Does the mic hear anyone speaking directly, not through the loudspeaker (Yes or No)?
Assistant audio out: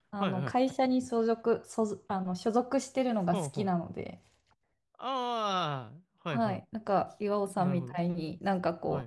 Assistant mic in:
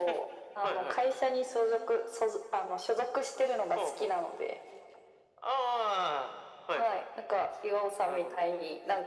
No